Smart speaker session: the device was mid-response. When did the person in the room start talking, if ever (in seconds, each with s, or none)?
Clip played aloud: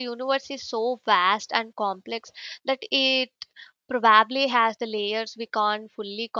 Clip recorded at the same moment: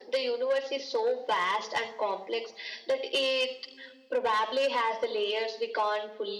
none